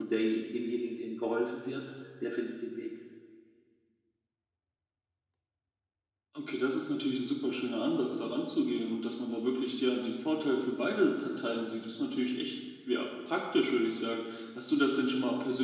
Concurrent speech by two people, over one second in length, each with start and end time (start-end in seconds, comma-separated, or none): none